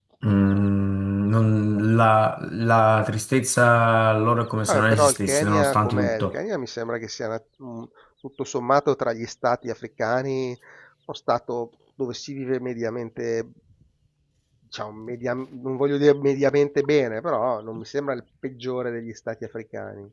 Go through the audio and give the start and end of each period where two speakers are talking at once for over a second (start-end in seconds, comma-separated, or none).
4.7-6.4